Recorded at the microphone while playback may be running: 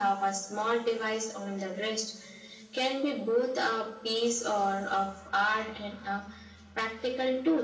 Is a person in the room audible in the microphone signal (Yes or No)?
No